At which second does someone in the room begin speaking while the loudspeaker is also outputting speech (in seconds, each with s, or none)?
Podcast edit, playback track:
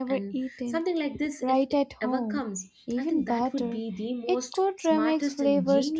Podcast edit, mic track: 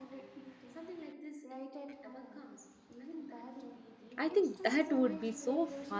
4.2 s